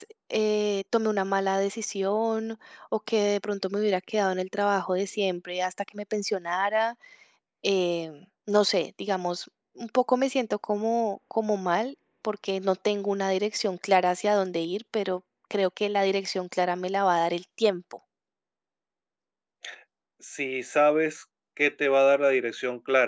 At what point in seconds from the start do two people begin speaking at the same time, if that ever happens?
none

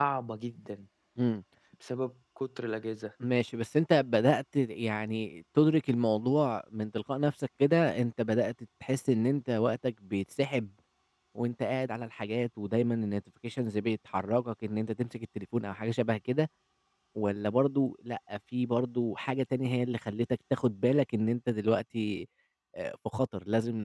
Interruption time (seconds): none

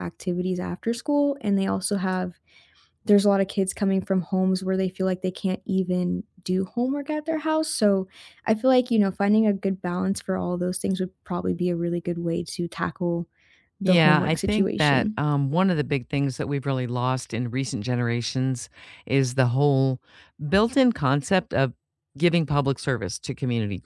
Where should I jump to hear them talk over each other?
13.8 s

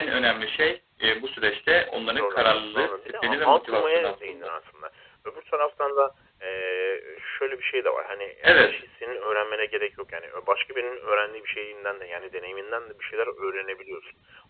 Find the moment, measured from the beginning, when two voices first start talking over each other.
2.1 s

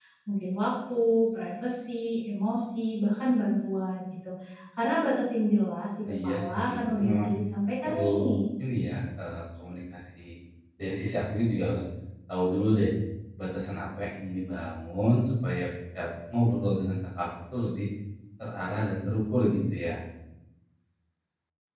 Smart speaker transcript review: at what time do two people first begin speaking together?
6.1 s

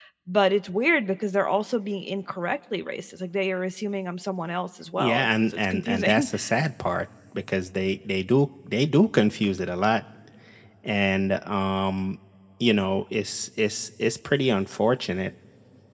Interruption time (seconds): 5.0 s

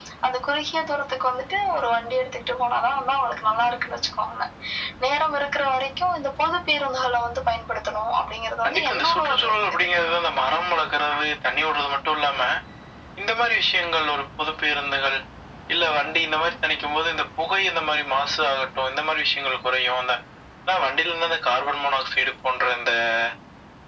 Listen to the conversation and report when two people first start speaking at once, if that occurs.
8.6 s

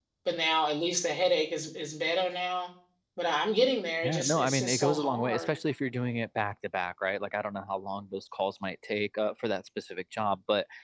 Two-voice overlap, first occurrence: 4.0 s

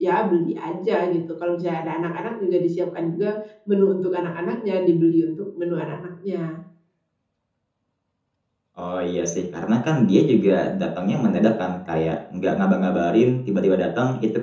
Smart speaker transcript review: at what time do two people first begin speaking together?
none

